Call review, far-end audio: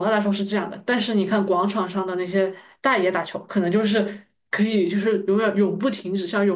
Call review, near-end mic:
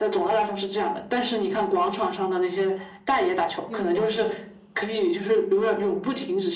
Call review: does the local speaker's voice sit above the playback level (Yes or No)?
No